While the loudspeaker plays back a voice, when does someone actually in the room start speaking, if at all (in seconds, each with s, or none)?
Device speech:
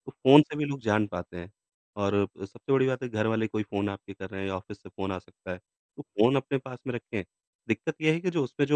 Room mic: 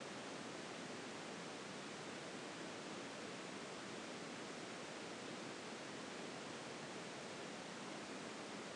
none